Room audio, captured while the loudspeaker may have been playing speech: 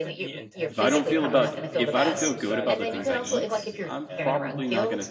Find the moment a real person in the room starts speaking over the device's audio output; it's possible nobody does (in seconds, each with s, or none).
0.7 s